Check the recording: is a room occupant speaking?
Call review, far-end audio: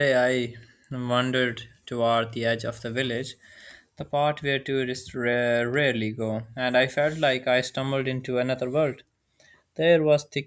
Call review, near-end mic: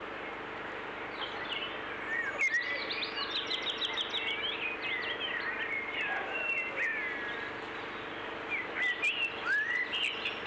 No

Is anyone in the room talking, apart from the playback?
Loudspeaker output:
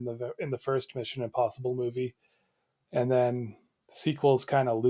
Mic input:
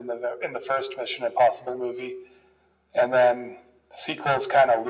No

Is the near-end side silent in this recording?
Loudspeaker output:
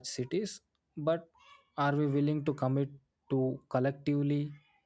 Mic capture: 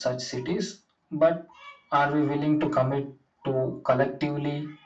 Yes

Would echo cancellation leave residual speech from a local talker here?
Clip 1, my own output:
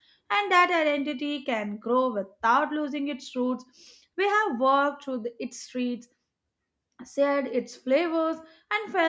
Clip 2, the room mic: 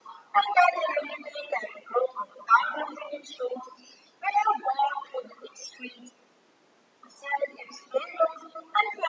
No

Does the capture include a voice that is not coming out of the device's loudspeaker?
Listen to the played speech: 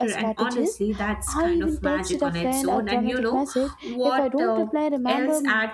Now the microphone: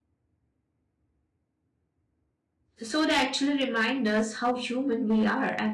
Yes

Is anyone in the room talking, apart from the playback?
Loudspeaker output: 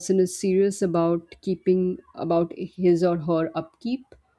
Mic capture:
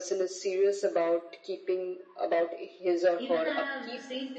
Yes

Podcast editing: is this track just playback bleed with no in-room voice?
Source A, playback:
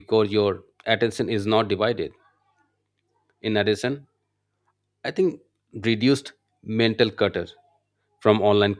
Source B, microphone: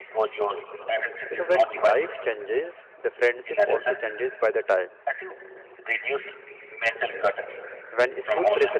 No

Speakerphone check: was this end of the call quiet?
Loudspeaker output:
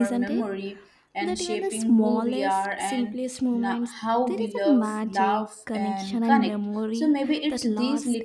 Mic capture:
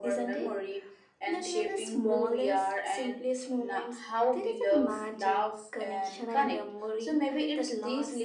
Yes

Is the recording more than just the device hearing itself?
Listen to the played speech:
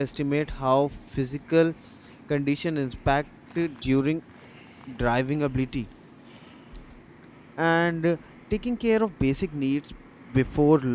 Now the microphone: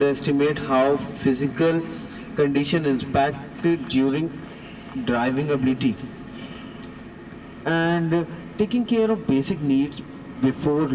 No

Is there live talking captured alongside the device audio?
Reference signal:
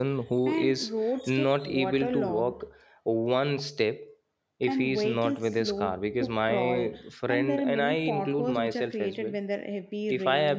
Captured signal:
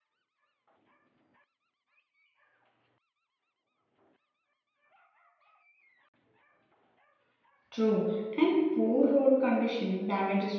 Yes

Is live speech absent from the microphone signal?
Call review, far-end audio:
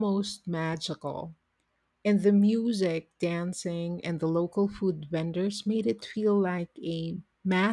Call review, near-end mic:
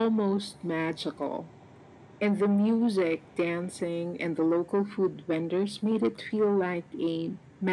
Yes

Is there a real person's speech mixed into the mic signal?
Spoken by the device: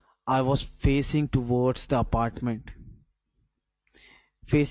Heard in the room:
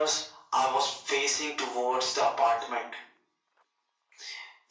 No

